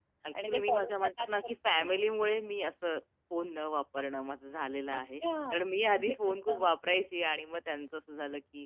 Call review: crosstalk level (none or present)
present